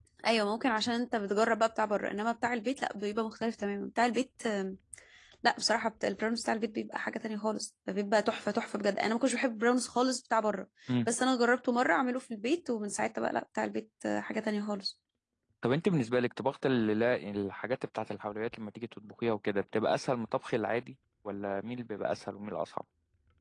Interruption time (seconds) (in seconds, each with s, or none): none